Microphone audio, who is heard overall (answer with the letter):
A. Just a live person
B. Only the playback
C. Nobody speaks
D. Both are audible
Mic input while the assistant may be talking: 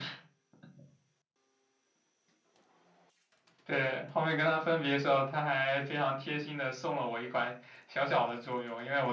B